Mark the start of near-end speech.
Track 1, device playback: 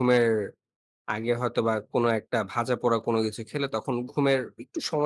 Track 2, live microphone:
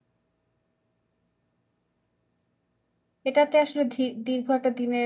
3.3 s

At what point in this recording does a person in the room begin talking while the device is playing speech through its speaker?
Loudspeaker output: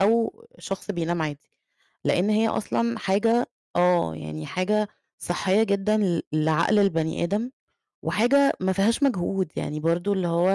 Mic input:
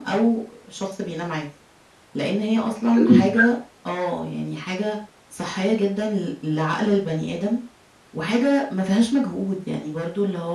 3.0 s

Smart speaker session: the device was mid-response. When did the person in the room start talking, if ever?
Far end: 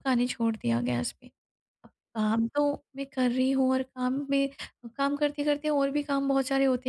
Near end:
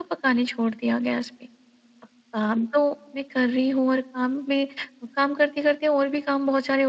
none

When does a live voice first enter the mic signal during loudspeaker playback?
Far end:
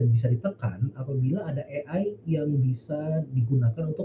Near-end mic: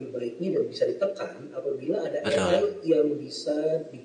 2.2 s

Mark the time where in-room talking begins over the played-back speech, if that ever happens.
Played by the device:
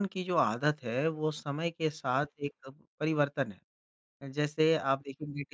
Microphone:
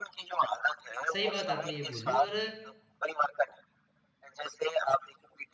1.1 s

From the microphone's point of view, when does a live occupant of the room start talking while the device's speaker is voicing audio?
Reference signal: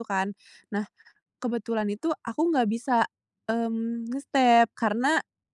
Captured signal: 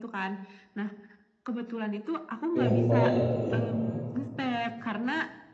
2.6 s

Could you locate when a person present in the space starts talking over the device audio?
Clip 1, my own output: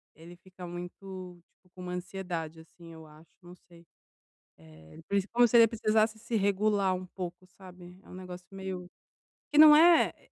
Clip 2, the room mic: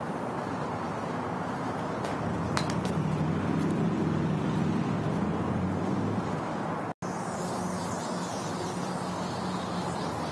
none

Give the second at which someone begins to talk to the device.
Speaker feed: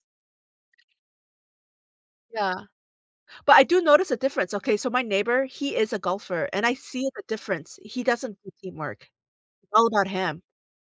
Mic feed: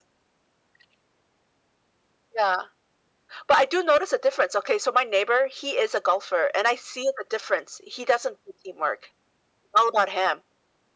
none

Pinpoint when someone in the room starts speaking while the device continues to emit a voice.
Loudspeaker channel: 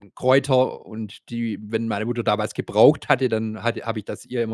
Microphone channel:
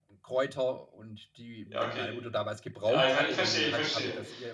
1.7 s

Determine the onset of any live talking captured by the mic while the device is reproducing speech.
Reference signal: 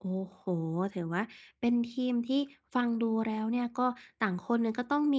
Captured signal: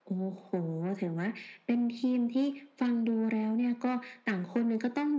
none

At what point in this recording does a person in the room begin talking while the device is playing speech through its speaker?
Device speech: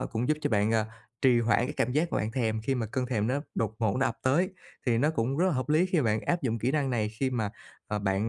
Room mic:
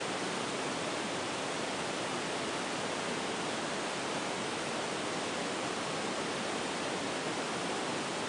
none

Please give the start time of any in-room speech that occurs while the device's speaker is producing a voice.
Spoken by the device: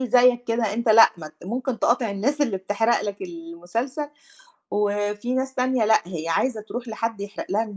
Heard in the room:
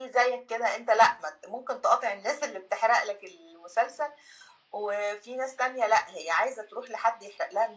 none

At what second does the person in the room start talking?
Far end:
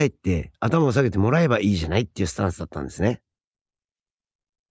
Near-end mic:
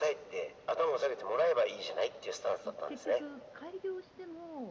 2.7 s

